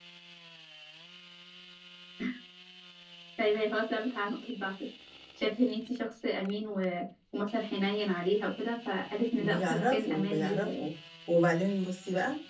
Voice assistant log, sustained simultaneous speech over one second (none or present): present